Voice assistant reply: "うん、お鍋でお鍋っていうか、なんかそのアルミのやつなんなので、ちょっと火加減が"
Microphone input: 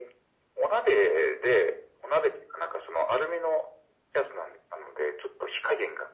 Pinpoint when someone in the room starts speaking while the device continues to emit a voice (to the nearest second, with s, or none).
none